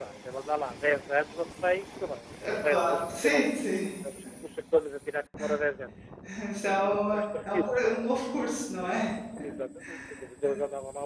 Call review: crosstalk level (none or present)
present